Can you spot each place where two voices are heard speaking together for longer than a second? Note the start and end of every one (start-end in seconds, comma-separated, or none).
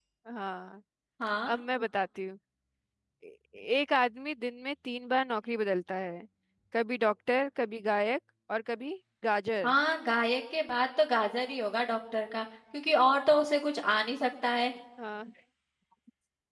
none